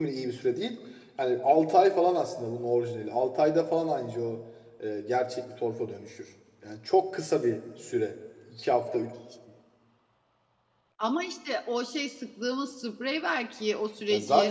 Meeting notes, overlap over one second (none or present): none